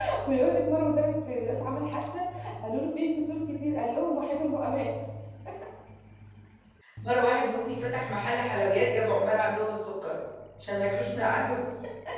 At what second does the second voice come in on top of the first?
none

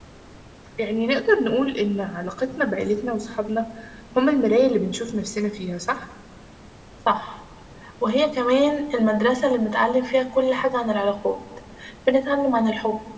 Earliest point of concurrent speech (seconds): none

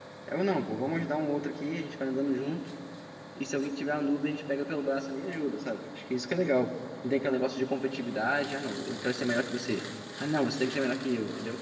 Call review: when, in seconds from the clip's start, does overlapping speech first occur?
none

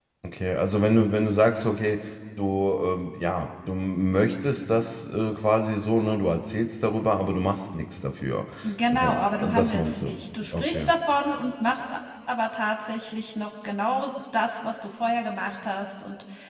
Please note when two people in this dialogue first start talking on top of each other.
8.9 s

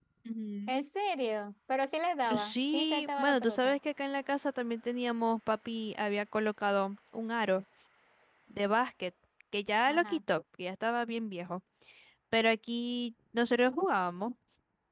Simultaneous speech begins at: 2.4 s

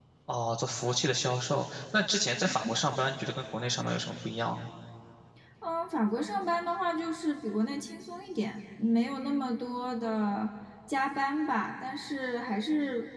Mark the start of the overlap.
none

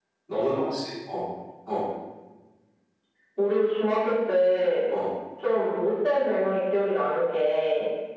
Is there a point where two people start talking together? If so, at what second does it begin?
none

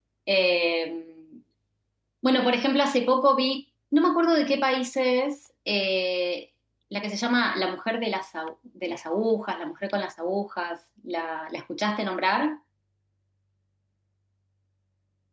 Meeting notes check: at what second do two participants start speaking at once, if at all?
none

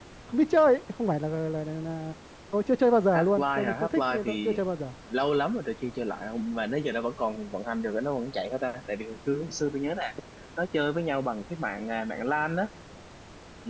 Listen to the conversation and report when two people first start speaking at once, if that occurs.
3.1 s

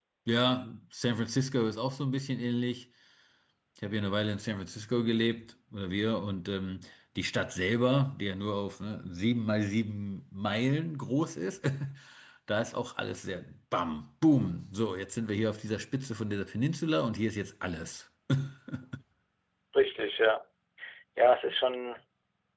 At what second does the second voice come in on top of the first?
none

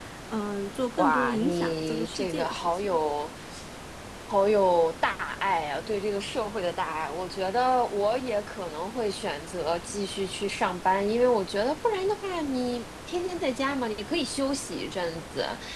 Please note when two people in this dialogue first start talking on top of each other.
1.0 s

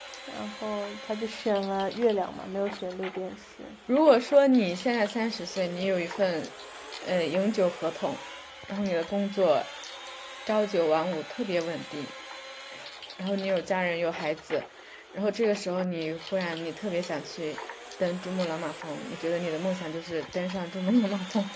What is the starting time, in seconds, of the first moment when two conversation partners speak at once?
none

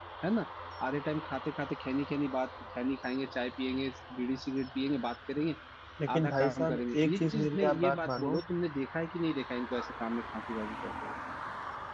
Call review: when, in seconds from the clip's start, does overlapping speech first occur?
6.2 s

